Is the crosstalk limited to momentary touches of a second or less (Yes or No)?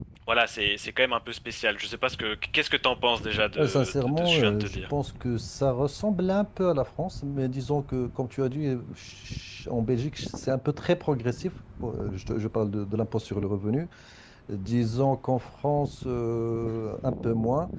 No